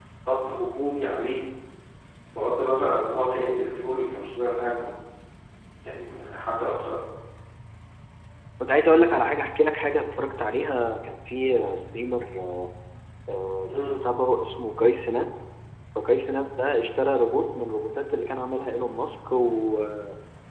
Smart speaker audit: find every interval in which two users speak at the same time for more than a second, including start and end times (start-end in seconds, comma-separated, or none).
none